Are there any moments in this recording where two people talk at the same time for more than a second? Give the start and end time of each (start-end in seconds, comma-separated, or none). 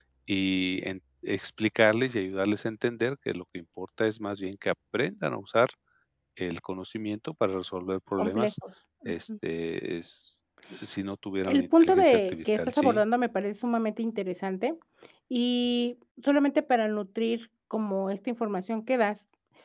11.5-13.0